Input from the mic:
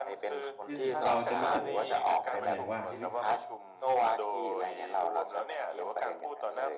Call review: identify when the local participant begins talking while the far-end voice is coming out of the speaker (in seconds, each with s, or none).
0.7 s